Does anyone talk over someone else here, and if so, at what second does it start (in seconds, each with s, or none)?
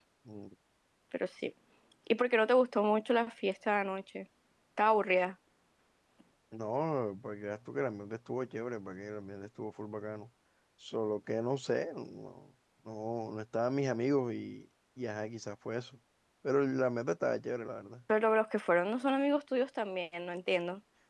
none